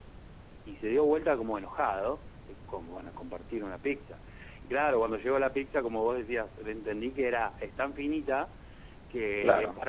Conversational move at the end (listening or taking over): listening